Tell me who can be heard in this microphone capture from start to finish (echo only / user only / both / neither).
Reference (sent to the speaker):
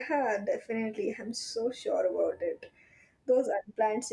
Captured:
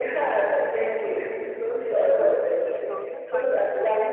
both